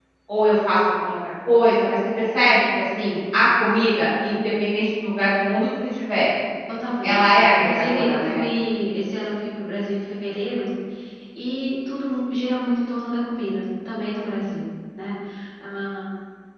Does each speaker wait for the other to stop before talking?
No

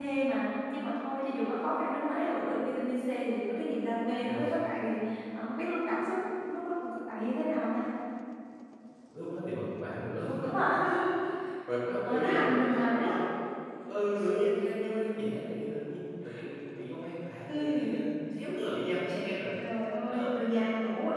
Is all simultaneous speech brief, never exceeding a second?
No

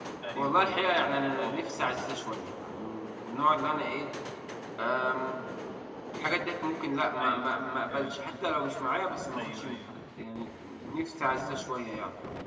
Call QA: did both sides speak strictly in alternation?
No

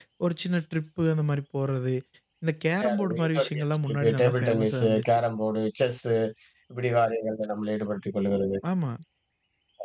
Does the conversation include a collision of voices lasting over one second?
Yes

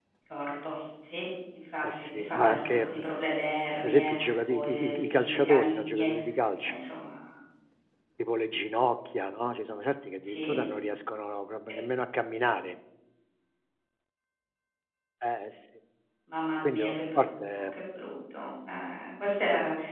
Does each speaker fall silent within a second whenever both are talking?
No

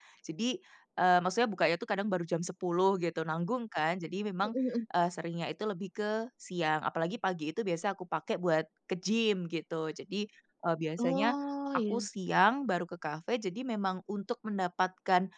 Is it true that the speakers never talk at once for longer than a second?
Yes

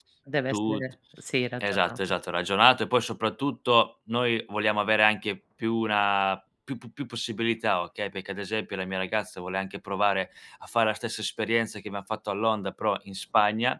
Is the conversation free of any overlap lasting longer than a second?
Yes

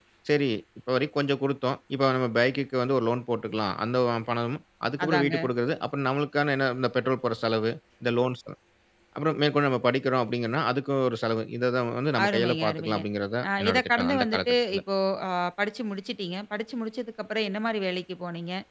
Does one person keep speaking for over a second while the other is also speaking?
Yes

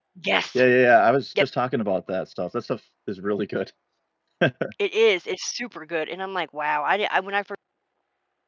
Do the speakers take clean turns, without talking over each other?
Yes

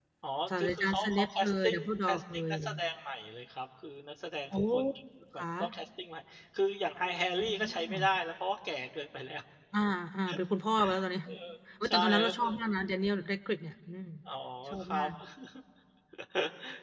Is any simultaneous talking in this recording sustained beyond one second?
Yes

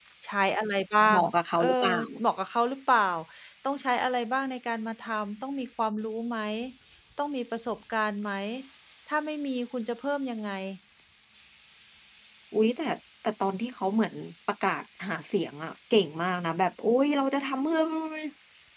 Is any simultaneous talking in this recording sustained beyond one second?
No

